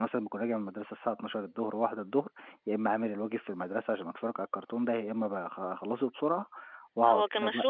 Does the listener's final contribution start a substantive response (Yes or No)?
Yes